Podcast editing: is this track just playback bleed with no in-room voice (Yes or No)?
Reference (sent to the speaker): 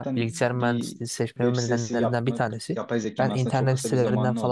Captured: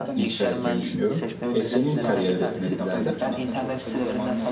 No